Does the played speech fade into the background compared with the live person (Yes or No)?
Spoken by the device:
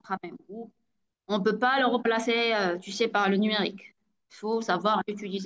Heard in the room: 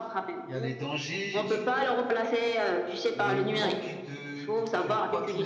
No